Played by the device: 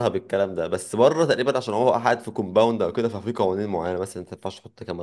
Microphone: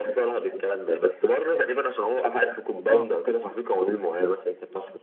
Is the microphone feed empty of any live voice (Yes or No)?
No